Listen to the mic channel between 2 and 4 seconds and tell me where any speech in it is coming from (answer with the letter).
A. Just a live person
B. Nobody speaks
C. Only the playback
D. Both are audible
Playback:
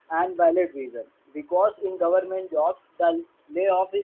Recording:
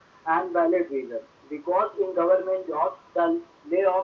C